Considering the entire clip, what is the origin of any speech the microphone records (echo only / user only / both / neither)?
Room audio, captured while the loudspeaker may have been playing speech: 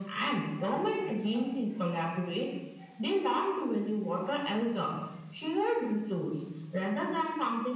echo only